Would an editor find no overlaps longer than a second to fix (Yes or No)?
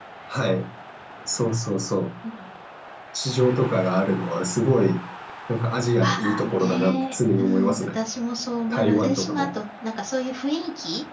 No